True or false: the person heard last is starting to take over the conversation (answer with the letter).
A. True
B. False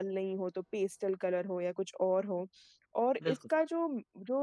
B